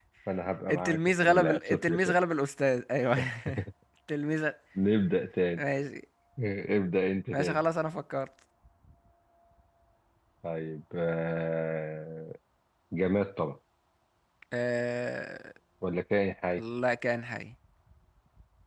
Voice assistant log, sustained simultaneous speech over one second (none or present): present